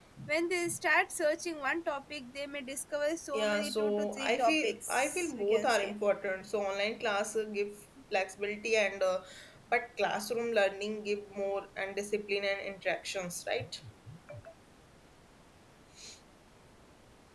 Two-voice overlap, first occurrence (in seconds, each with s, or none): 3.3 s